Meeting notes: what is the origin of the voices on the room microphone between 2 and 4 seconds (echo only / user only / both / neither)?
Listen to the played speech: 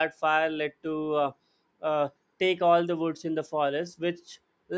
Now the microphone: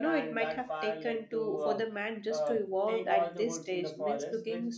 both